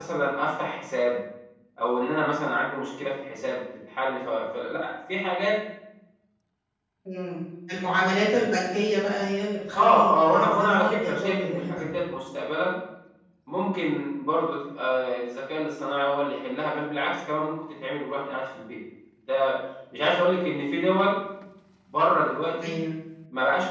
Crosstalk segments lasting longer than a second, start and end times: 9.7-11.9

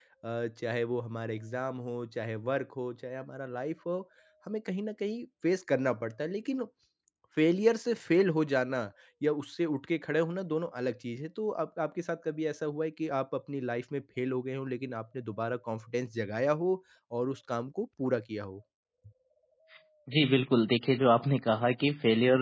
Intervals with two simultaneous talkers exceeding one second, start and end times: none

